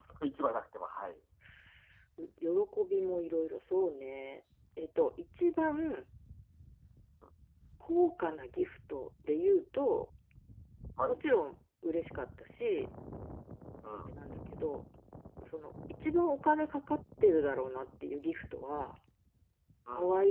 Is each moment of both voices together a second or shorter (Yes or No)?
Yes